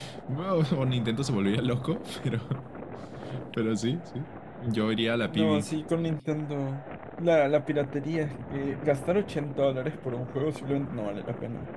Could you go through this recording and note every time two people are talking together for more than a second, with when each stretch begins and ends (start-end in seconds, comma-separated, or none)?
none